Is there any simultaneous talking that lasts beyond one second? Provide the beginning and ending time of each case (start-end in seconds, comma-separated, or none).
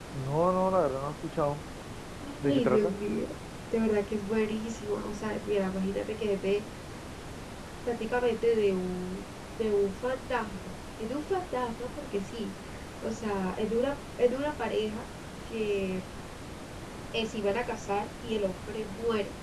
none